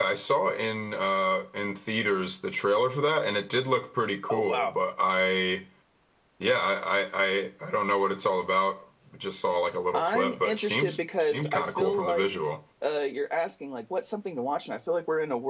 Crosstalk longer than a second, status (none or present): present